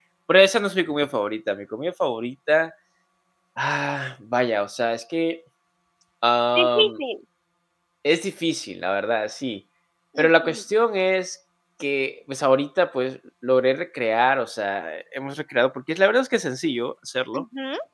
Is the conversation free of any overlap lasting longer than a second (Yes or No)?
Yes